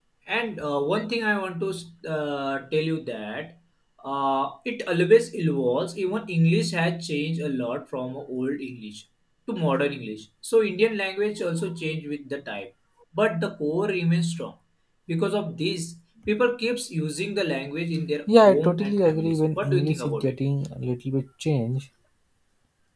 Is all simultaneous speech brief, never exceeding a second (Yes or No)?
No